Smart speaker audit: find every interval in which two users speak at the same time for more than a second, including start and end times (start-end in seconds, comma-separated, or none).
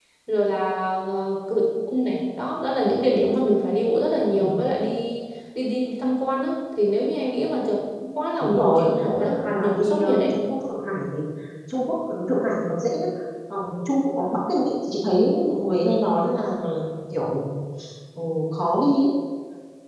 8.4-10.3